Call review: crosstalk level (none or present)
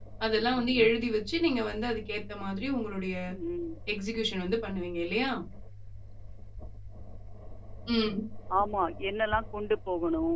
none